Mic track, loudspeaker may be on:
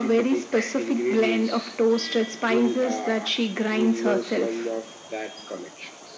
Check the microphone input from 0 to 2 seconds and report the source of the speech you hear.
echo only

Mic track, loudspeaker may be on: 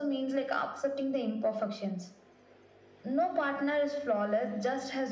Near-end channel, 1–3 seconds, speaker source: echo only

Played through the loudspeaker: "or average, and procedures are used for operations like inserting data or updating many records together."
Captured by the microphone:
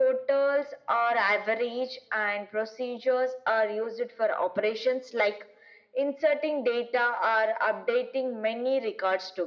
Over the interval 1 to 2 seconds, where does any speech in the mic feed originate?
echo only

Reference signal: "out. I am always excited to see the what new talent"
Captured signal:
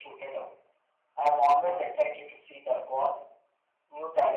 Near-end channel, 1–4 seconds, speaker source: echo only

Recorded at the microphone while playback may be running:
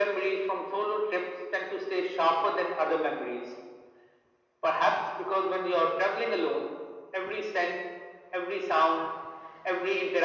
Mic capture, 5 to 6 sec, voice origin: echo only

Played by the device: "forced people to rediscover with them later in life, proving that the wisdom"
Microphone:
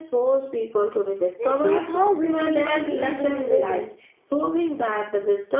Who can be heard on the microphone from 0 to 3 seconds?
both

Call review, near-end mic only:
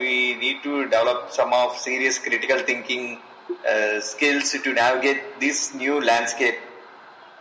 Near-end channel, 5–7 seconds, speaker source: echo only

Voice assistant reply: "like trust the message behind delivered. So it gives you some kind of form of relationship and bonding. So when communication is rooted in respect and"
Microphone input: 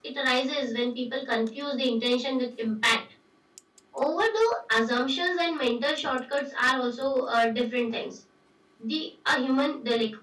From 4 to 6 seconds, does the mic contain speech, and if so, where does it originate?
user only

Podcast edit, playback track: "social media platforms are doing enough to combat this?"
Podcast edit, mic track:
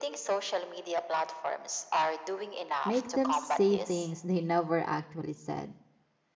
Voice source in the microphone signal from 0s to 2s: echo only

